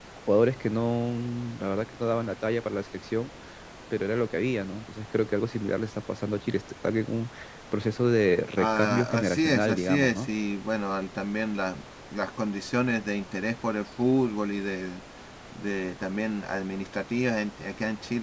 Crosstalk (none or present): present